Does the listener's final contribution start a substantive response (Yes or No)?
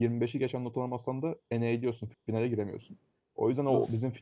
No